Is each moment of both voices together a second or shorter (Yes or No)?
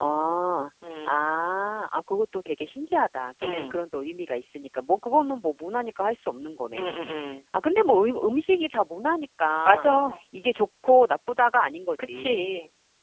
Yes